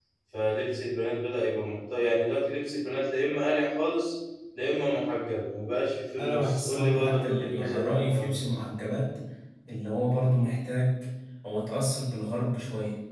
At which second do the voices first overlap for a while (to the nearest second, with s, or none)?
6 s